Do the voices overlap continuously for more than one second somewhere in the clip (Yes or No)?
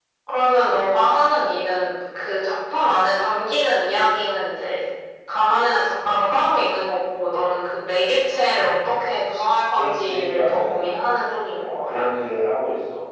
Yes